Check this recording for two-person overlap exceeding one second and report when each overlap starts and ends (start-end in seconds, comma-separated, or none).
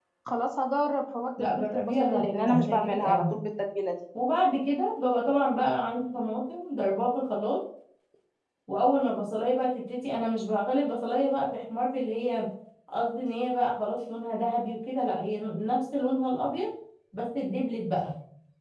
1.4-3.2